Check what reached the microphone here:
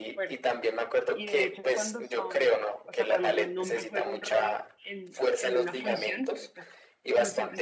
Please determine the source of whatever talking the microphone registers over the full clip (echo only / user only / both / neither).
both